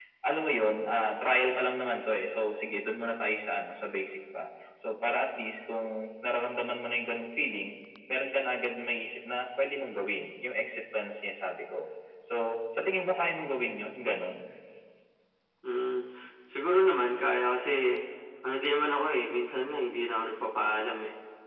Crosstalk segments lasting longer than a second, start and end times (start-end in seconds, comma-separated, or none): none